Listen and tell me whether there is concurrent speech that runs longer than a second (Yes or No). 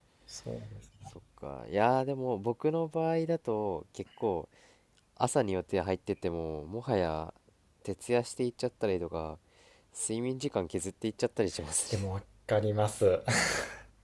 No